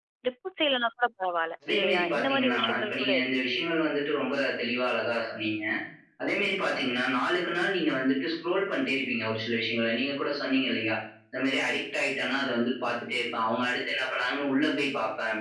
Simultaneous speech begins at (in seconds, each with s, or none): 1.6 s